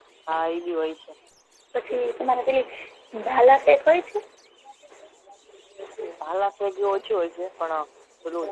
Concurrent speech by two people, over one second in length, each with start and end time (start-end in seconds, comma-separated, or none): none